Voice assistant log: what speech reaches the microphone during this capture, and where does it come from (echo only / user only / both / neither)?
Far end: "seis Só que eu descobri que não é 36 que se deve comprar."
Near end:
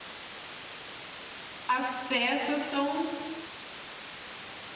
user only